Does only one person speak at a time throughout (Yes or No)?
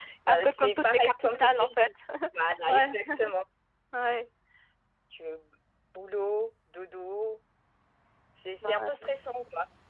No